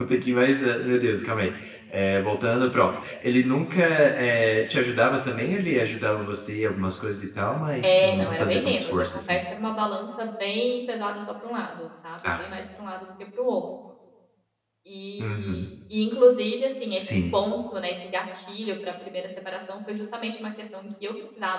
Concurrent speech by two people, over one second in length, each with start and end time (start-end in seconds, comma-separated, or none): 7.8-9.4